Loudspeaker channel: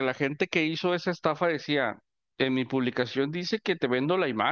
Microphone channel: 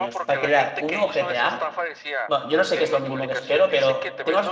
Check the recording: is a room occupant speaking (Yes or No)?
Yes